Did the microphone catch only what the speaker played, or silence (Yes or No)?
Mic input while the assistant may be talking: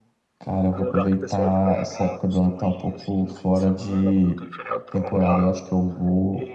No